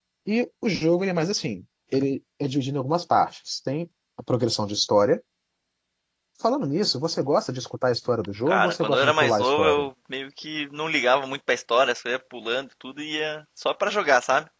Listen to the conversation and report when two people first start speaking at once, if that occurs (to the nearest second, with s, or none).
8 s